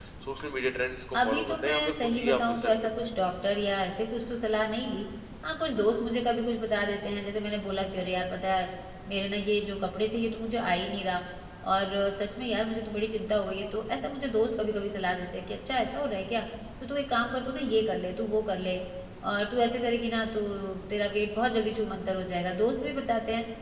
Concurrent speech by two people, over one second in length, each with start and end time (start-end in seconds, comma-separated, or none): 1.1-2.9